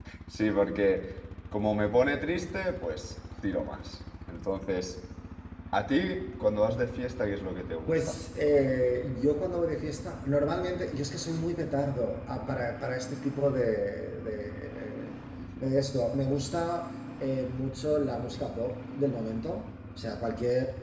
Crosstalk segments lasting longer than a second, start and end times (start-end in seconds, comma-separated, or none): none